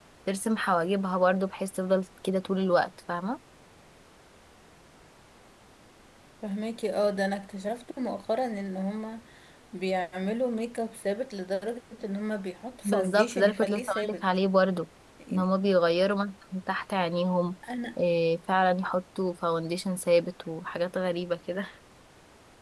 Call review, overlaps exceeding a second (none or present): present